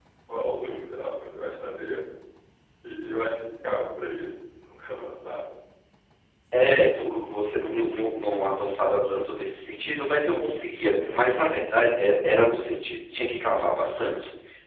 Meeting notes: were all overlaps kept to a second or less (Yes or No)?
Yes